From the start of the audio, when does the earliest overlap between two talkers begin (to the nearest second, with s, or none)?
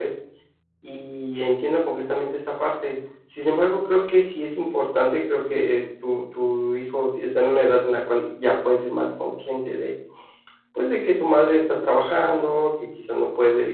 none